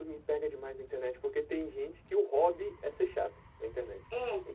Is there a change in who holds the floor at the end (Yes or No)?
No